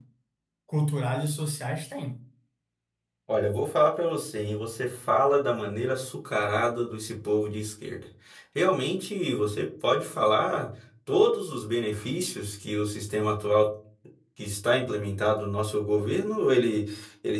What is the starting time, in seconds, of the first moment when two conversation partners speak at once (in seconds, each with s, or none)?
none